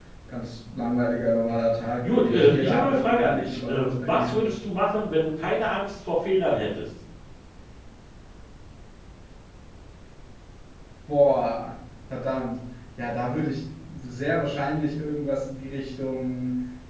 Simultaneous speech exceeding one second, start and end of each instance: 2.1-4.4

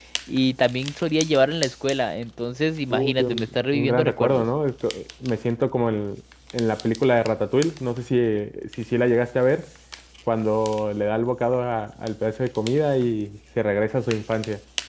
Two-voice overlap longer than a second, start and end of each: 2.9-4.5

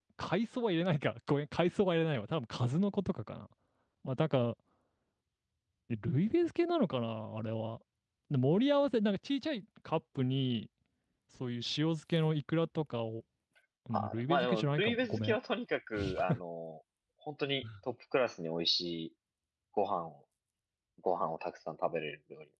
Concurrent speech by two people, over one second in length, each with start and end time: 13.9-15.4

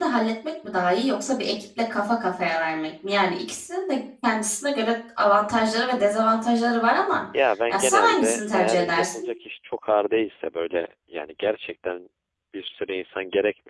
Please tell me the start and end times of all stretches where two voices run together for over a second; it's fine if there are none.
7.7-9.3

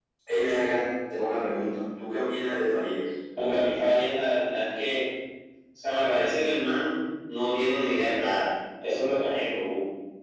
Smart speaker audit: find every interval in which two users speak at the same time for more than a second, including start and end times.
none

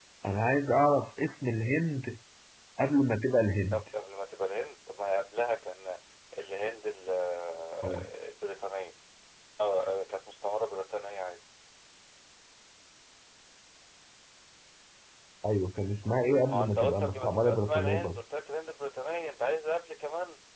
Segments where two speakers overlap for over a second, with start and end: 16.4-18.2

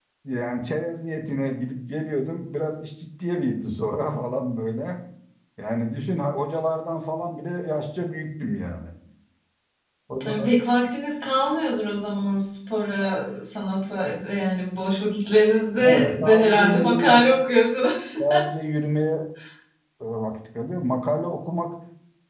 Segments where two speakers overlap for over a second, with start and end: 15.8-17.1

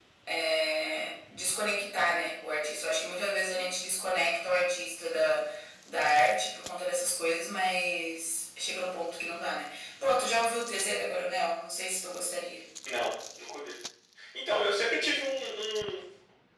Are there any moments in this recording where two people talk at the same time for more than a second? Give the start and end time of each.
none

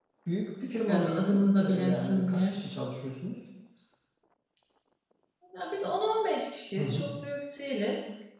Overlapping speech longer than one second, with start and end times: 0.9-2.5

